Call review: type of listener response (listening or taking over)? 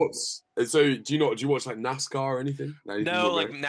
taking over